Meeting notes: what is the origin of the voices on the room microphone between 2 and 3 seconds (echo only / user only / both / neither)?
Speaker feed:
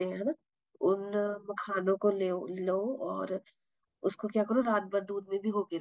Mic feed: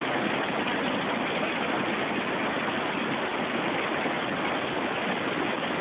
neither